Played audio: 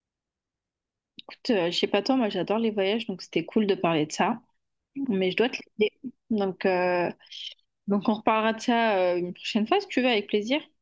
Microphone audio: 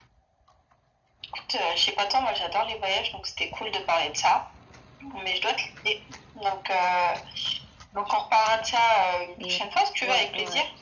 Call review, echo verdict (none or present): present